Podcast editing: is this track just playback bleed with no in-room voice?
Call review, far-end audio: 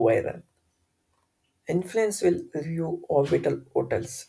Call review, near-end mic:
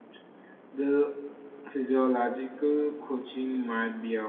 No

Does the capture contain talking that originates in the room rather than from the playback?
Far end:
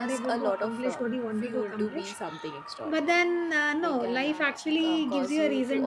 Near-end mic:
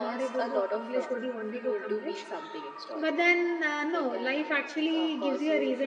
No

